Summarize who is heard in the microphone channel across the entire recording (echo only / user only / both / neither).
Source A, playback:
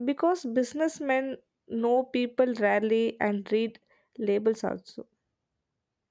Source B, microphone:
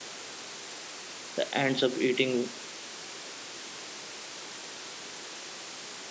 user only